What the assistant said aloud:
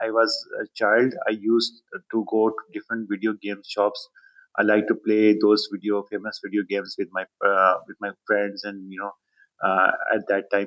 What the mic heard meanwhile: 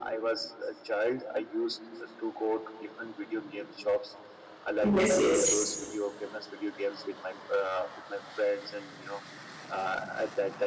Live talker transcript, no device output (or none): yes, yes.